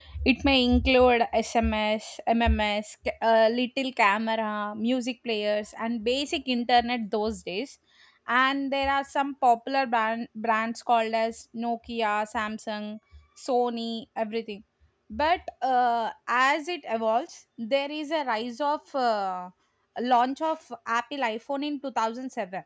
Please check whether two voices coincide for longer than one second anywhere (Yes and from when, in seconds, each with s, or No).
No